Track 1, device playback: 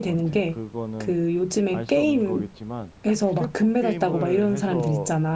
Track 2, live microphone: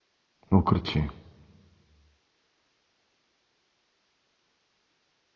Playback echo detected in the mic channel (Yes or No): No